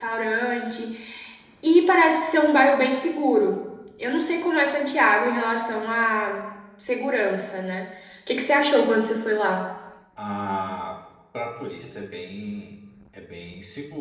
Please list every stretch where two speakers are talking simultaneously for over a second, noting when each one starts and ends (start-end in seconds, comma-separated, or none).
none